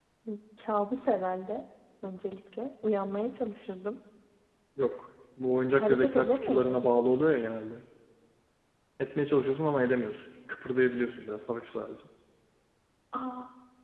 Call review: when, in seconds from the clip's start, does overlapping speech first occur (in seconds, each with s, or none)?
5.8 s